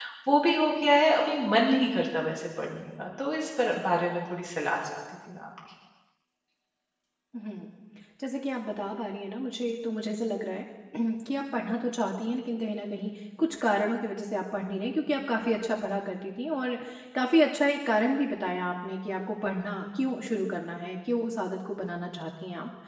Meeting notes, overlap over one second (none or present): none